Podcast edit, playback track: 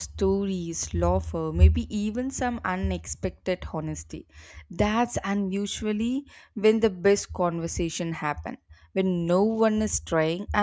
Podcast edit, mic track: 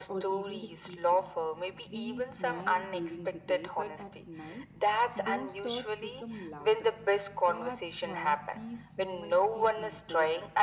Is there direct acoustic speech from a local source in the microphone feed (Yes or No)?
Yes